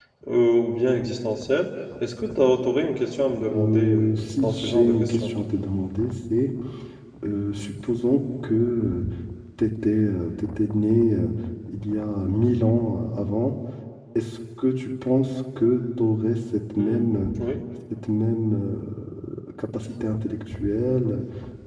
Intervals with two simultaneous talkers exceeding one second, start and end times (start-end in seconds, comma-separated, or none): 3.5-5.3